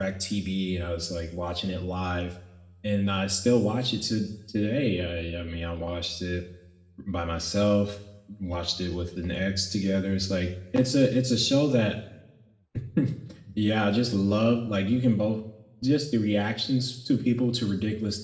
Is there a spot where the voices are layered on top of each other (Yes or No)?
No